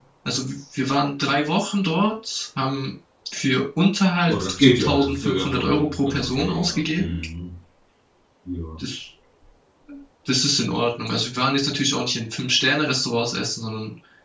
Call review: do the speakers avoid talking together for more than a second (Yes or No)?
No